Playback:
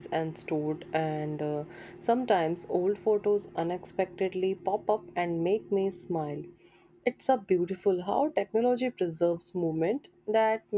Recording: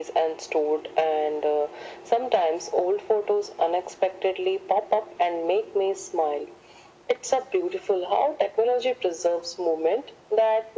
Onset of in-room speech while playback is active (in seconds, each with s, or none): none